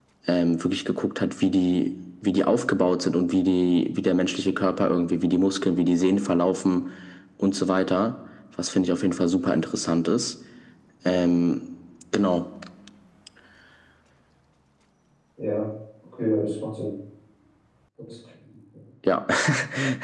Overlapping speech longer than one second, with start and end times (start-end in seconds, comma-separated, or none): none